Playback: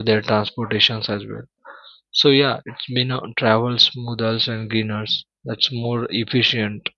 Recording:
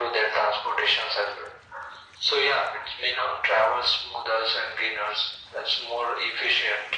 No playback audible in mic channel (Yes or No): No